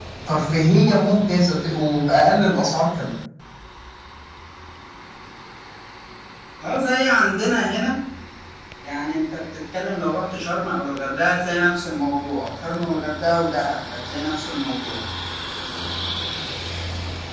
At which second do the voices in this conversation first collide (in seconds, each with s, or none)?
none